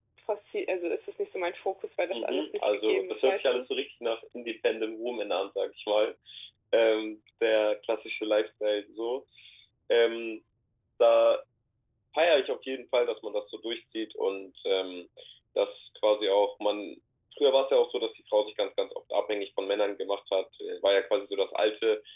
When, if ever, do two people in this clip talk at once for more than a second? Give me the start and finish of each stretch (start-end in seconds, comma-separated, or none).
2.1-3.7